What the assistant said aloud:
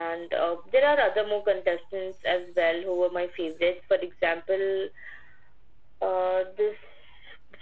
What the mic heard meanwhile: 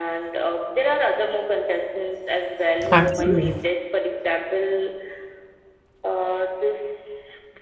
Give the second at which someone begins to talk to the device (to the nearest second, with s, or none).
3 s